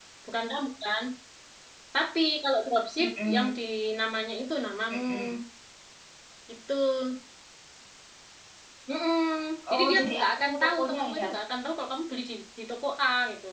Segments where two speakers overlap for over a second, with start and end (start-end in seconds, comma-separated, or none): 9.7-11.3